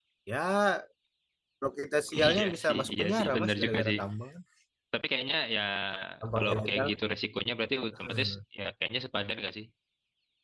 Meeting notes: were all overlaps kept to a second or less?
No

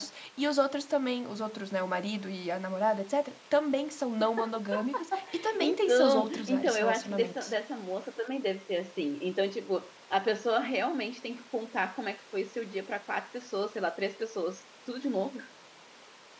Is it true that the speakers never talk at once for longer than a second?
No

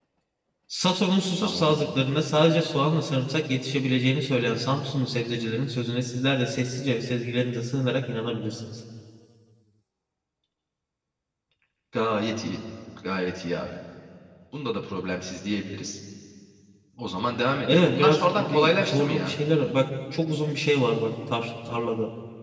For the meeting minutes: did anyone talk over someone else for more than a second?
Yes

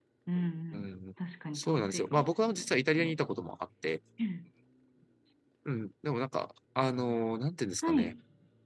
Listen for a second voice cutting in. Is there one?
Yes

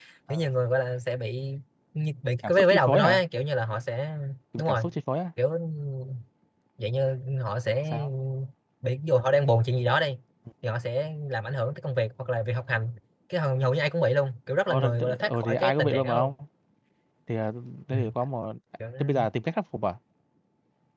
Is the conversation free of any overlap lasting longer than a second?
No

